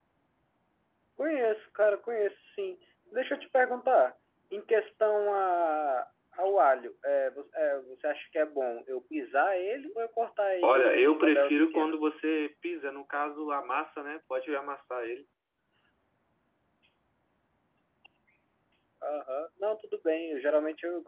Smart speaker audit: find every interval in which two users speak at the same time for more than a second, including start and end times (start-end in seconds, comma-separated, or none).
10.6-11.9